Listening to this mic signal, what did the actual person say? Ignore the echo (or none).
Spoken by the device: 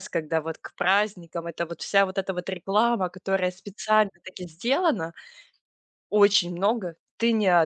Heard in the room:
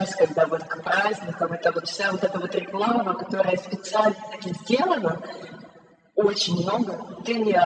none